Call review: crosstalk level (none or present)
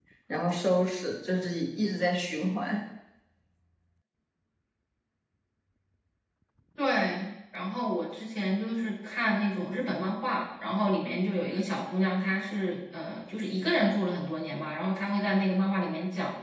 none